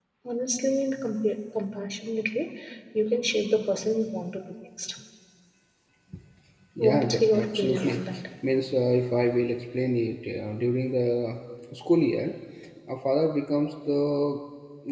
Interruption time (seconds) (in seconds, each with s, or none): 6.8 s